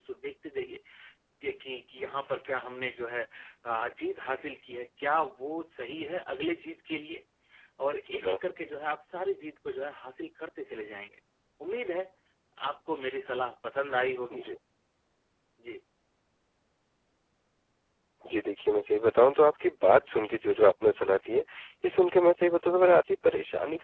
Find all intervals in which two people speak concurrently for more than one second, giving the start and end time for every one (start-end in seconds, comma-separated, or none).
none